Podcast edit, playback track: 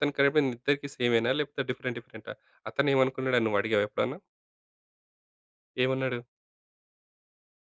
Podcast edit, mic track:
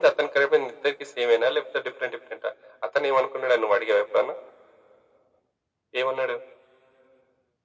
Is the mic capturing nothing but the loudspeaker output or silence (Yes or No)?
Yes